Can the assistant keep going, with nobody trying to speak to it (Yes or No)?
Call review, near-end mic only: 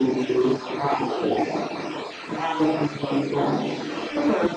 Yes